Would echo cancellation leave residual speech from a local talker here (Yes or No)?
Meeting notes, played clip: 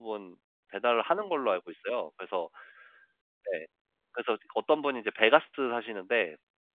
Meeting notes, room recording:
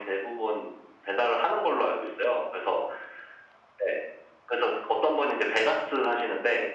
No